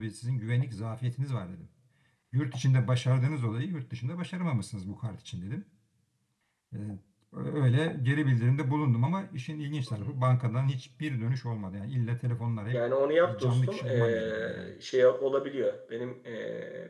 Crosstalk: present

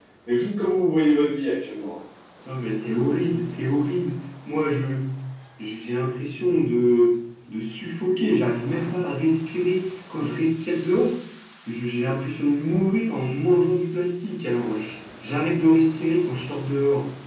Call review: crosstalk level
none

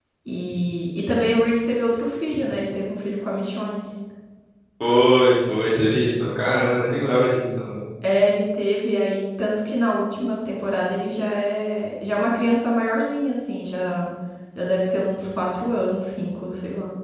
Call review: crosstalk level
none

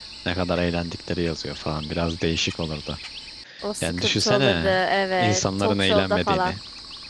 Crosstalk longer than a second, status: present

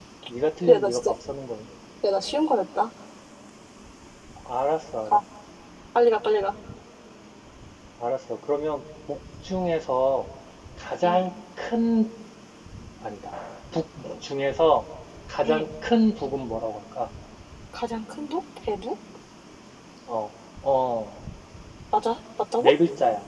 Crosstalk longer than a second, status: none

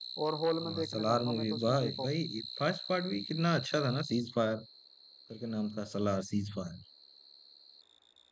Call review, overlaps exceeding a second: present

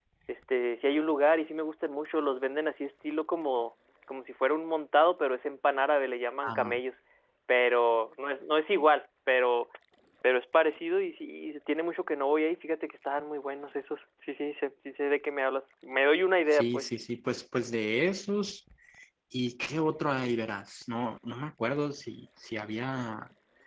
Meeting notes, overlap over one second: none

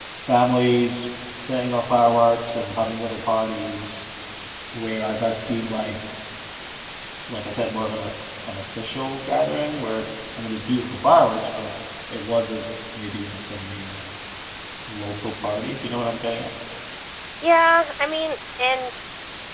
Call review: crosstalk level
none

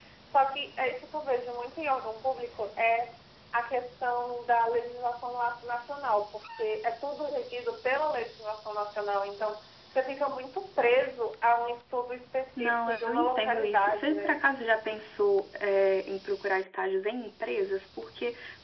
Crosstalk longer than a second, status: present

